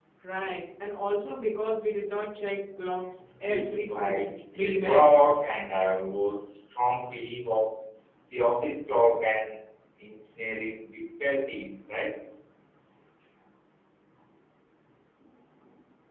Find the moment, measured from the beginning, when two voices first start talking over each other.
3.5 s

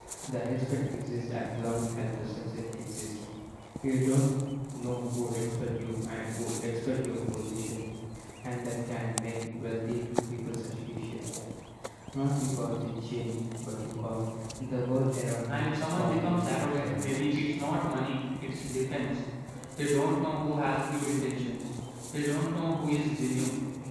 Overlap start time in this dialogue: 15.5 s

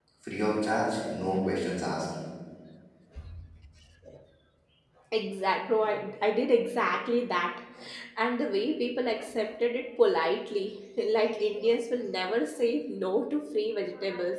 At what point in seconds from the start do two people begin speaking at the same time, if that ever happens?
none

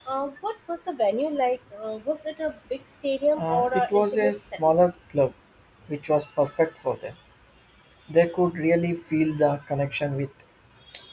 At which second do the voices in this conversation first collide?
3.4 s

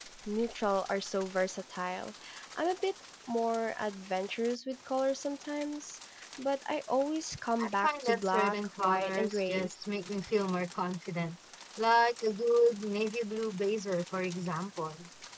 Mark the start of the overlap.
7.6 s

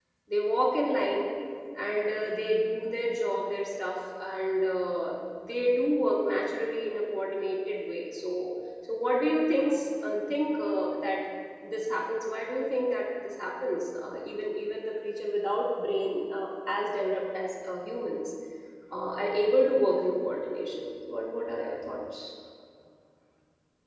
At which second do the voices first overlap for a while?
none

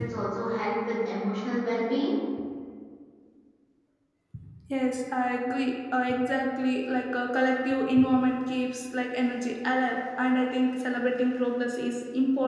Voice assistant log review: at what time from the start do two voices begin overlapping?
none

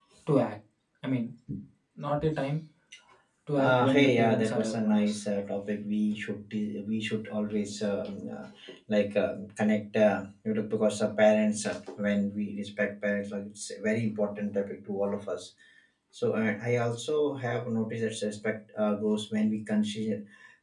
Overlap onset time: 3.6 s

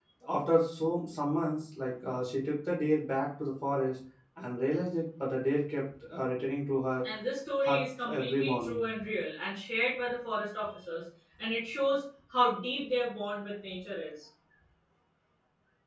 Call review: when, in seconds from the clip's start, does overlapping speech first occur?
7.6 s

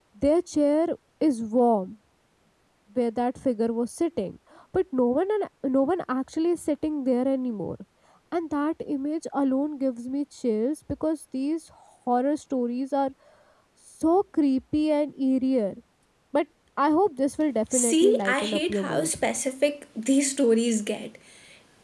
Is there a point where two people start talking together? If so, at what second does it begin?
17.7 s

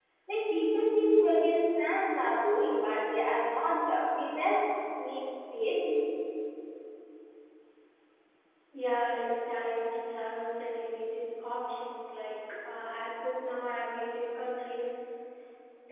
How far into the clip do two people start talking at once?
none

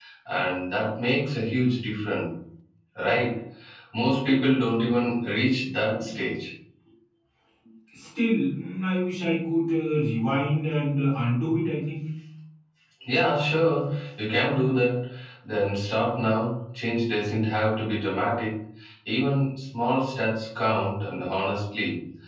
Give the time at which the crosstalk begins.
none

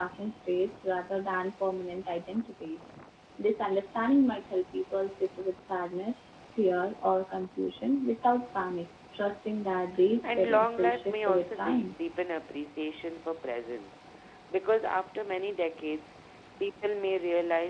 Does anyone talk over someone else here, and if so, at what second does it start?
10.2 s

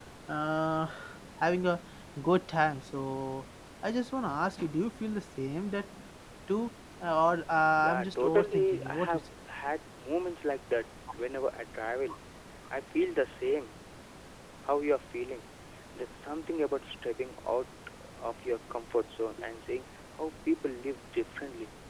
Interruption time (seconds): 7.8 s

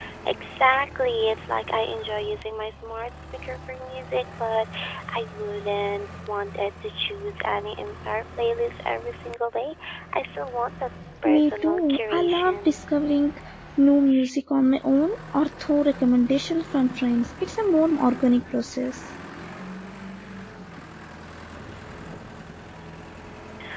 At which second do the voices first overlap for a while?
11.2 s

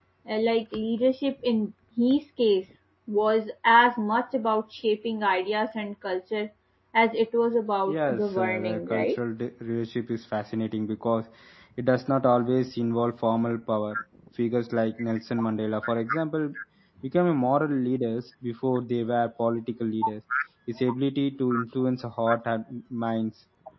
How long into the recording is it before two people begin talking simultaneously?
7.9 s

